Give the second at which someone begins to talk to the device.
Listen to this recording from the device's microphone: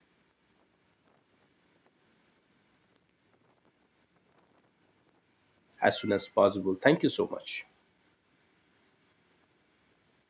5.8 s

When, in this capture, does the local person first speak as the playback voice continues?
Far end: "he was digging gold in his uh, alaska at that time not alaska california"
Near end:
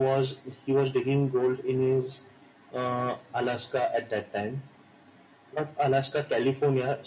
none

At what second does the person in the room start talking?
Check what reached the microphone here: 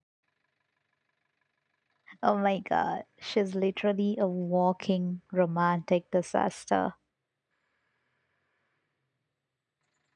2.2 s

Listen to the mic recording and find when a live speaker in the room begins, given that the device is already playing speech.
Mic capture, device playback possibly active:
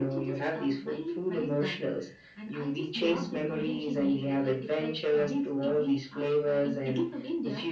none

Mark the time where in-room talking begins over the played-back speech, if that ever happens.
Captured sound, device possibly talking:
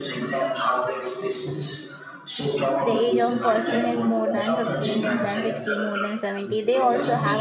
2.8 s

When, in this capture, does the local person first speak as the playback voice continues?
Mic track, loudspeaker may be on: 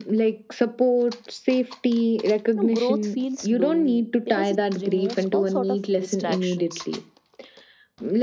2.5 s

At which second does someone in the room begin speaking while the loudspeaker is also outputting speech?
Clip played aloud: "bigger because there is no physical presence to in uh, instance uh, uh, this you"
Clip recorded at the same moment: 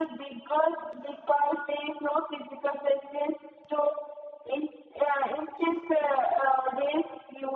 none

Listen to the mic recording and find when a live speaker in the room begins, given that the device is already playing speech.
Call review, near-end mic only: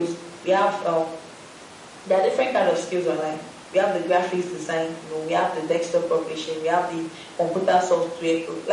none

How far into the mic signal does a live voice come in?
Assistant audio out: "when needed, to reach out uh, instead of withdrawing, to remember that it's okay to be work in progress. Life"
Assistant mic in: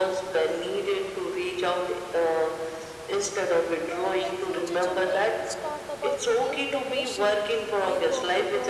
3.9 s

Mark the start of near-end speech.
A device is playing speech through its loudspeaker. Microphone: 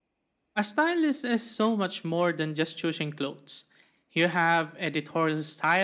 none

